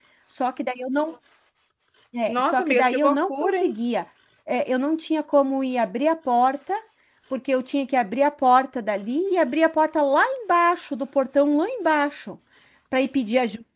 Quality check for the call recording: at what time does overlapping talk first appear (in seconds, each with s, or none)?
2.3 s